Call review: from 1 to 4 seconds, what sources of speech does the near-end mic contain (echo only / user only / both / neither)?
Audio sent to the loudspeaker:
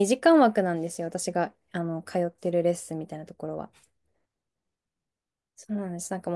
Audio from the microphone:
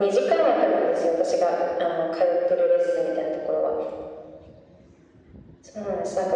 echo only